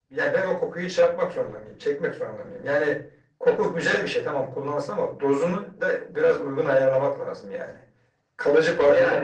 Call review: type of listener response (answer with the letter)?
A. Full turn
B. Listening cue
B